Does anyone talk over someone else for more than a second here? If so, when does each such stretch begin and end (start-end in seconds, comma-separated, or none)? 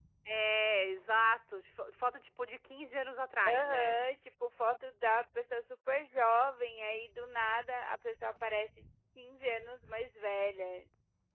none